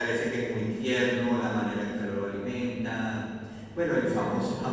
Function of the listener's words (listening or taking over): listening